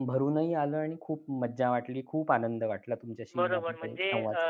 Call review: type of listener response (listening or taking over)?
taking over